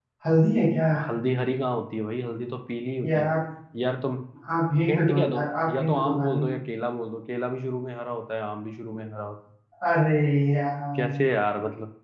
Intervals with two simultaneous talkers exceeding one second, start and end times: 4.9-6.4

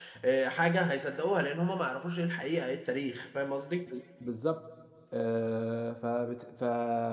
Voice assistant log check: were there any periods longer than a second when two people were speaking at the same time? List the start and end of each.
none

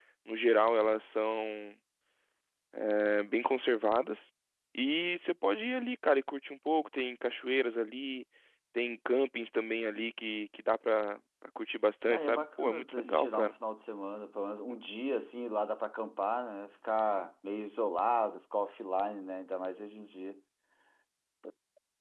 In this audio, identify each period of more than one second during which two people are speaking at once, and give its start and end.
12.1-13.6

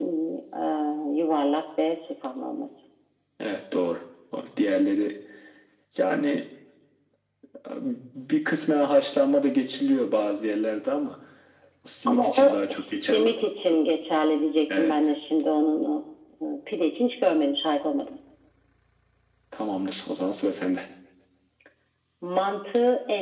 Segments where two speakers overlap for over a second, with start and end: 12.1-13.3

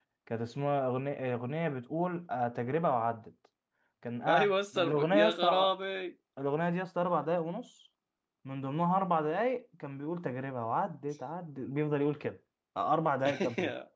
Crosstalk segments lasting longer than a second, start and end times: 4.3-5.7

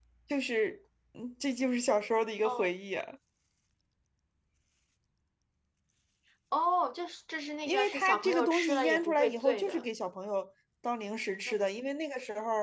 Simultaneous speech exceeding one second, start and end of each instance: 7.7-9.8

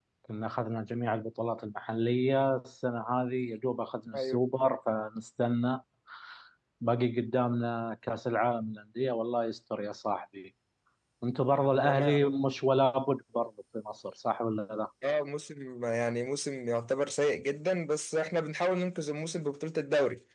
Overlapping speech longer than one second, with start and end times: none

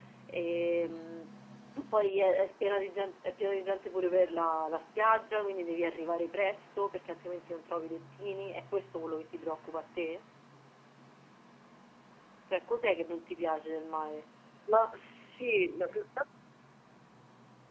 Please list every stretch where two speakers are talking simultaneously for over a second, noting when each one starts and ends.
none

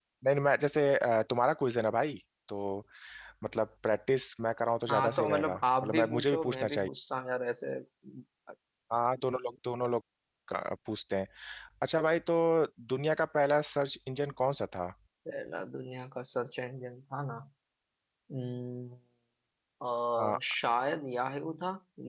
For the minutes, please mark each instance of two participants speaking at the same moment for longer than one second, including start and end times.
4.9-6.9

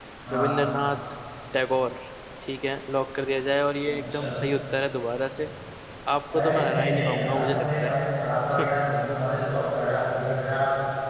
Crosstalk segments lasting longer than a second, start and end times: 6.4-7.8

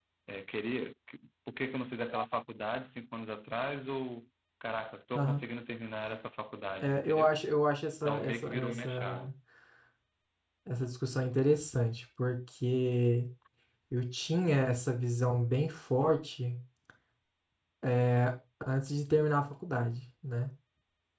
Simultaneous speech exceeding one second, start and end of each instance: 8.0-9.3

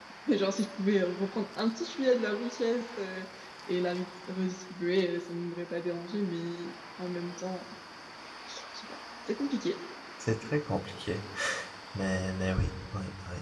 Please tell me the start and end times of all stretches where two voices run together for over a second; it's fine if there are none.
none

